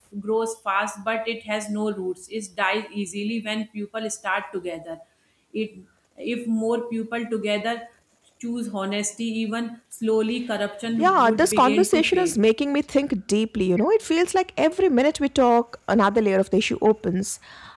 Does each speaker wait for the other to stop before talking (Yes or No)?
No